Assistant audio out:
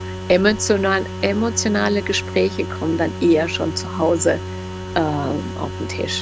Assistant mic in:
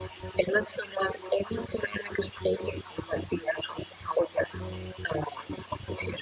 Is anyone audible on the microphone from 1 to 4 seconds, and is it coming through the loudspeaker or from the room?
echo only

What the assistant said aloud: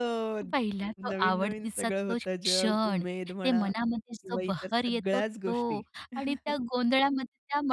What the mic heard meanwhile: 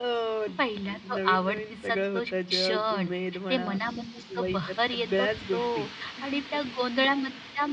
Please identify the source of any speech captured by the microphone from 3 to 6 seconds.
echo only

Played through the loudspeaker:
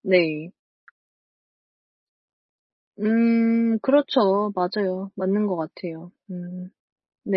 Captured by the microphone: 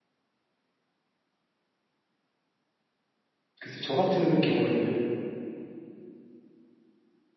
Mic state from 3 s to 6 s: user only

